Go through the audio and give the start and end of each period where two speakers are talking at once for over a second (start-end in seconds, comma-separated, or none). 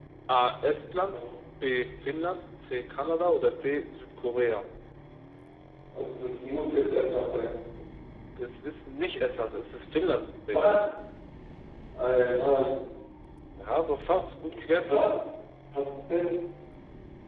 none